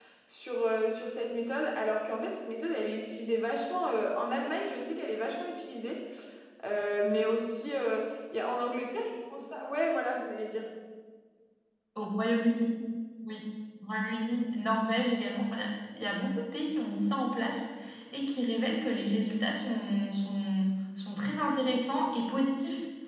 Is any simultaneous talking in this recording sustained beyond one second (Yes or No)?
No